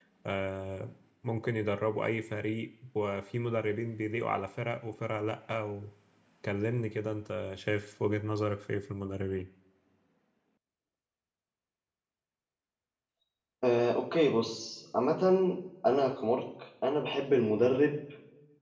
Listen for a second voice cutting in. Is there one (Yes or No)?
No